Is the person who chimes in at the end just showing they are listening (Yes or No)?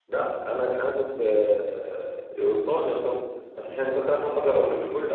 Yes